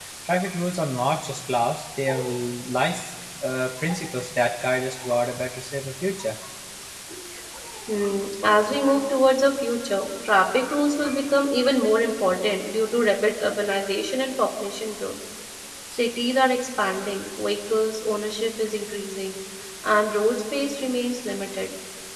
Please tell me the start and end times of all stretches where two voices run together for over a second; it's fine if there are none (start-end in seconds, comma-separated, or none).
none